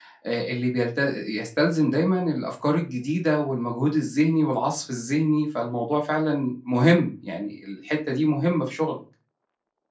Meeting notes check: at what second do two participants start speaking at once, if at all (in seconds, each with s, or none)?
none